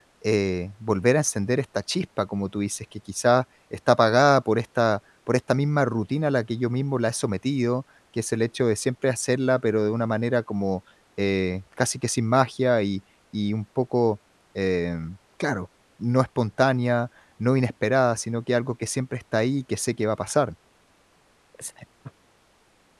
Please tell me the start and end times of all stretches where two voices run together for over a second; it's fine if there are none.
none

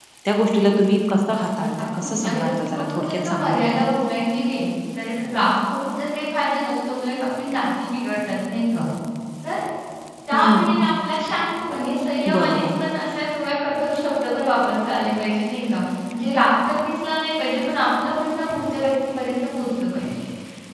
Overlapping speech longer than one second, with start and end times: 1.8-3.8

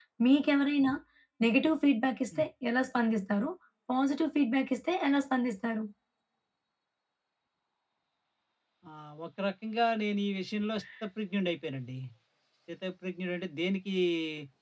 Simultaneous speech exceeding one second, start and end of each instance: none

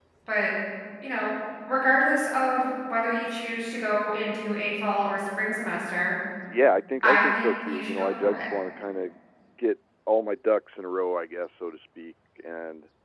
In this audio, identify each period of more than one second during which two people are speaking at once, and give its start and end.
7.0-8.5

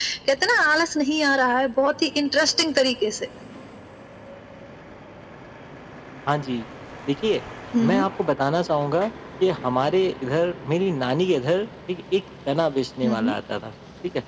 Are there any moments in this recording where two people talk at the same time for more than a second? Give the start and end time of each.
none

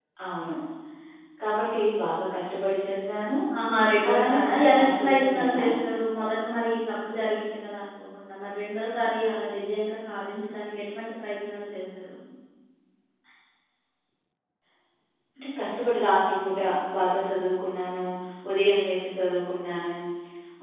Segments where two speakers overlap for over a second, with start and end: 4.1-5.6

